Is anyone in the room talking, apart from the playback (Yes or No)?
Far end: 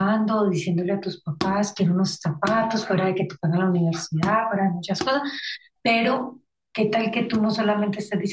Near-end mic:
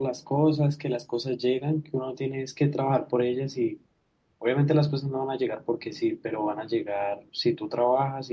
Yes